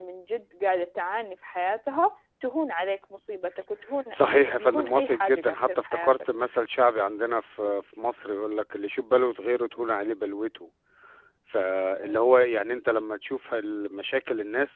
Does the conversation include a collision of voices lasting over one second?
Yes, from 4.1 s

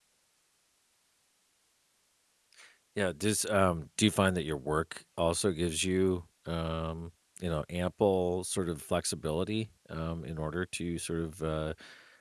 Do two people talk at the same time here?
No

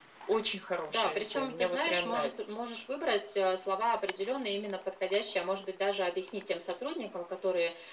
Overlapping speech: Yes, from 0.9 s

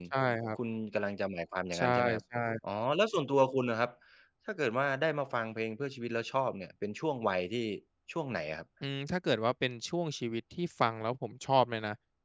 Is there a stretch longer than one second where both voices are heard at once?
No

